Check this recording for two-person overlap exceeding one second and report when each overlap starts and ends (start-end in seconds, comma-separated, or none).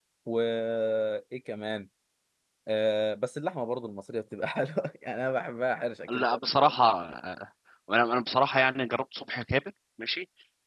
none